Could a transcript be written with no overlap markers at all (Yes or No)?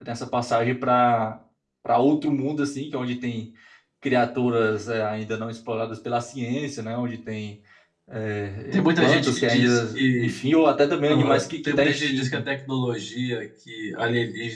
No